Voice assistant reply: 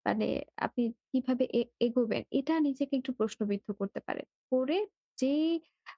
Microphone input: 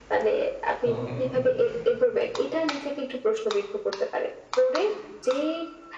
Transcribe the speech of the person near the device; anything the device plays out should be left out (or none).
ওকে, ওকে।